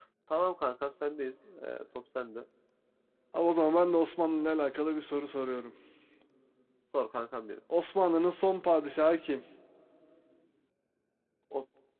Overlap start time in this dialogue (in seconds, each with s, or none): none